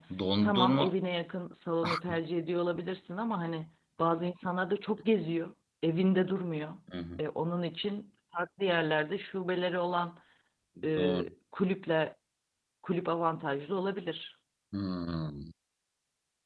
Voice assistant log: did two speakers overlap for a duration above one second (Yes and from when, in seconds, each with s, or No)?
No